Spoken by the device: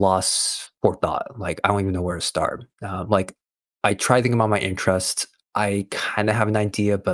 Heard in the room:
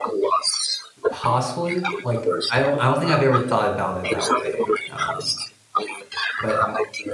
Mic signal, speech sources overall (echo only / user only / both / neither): both